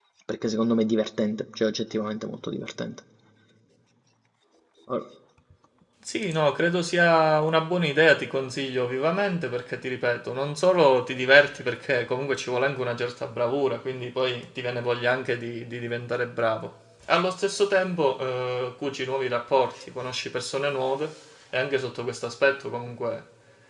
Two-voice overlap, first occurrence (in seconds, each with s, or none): none